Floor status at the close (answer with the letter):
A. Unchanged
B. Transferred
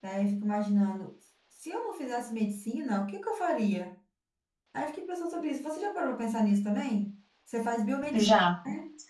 A